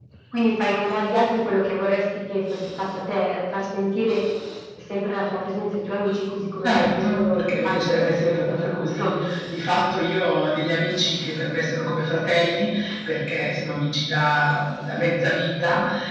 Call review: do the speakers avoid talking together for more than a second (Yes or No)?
No